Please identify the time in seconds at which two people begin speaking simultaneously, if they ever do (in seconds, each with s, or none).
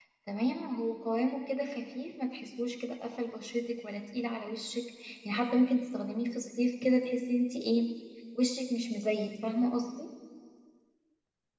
none